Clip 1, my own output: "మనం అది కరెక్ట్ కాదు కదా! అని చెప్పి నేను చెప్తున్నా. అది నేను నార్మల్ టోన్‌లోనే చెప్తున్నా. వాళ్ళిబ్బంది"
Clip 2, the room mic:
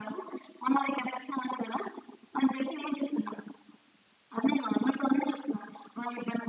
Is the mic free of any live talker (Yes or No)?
Yes